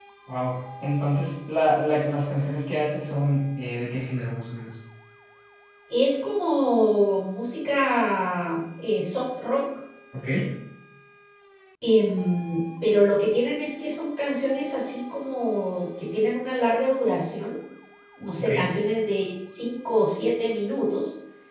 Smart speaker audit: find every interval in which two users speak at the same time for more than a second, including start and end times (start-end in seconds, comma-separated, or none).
none